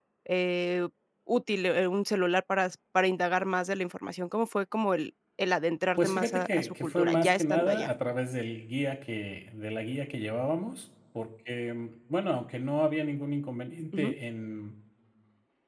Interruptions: present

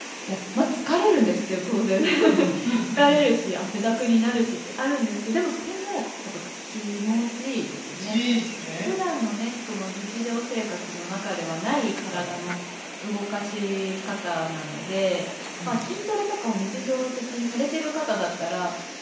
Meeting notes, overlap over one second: none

